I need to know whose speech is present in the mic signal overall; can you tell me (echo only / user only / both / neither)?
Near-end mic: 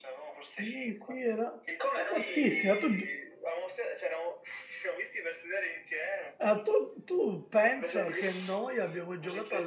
both